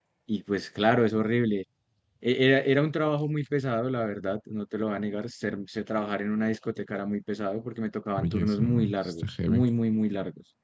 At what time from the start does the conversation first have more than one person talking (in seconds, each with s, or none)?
8.2 s